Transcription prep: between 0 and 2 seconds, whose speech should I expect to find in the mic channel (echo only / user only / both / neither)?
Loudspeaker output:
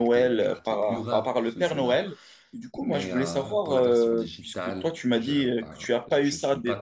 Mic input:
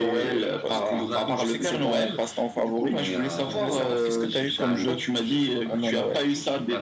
both